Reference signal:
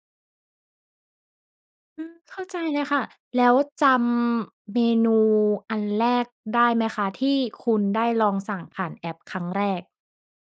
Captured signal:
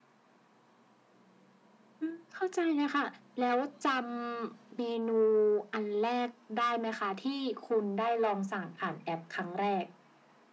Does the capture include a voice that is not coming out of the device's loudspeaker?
No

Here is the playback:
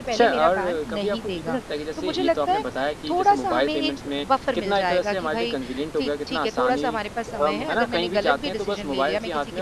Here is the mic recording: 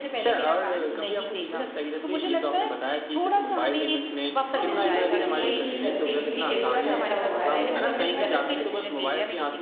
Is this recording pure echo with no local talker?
No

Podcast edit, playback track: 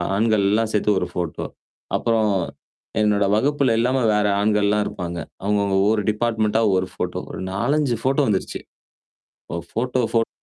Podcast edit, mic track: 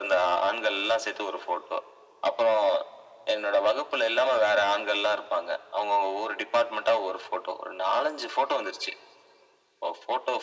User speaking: No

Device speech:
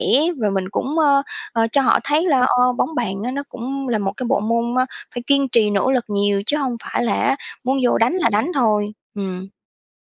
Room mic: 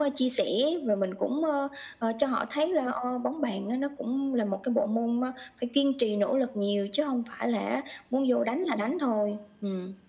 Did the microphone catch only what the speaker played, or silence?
Yes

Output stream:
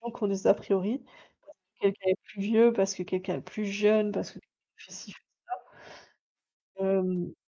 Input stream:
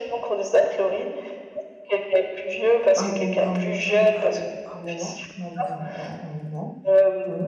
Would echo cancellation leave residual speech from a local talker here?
Yes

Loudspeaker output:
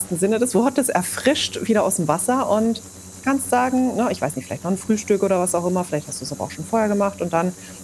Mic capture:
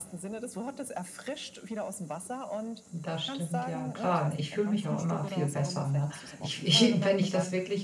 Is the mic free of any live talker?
No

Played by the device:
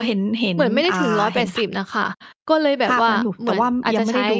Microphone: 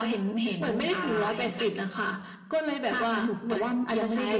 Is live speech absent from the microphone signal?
No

